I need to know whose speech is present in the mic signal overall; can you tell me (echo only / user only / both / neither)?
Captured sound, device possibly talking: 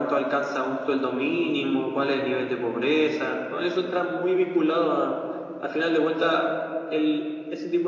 echo only